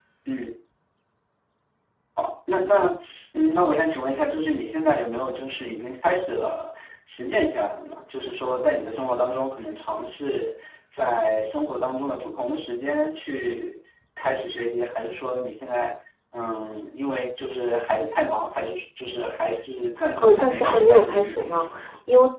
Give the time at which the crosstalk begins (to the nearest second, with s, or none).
20 s